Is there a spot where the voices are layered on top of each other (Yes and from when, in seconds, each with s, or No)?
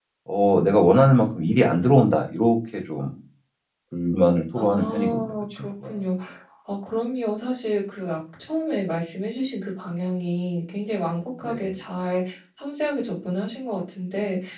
Yes, from 4.5 s